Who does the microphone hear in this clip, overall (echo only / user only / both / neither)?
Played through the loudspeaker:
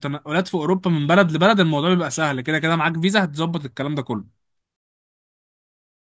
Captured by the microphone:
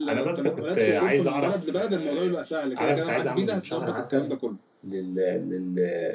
both